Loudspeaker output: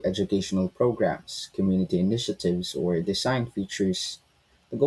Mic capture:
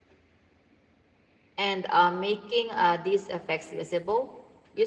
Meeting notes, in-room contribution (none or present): present